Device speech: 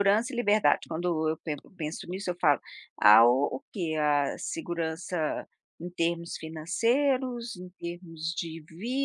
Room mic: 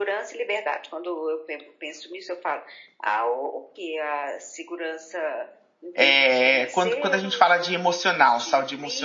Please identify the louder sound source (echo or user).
user